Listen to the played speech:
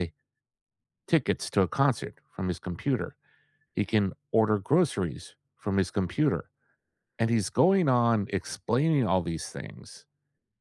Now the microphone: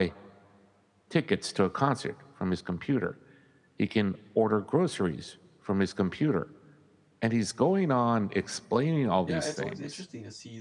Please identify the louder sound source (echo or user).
echo